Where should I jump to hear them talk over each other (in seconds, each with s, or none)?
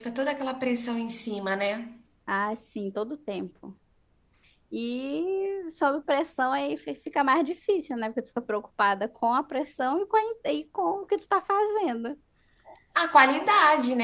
none